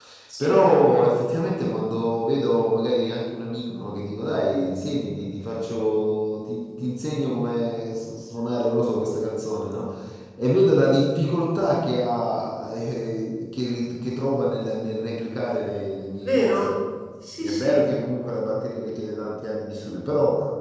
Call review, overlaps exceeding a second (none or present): none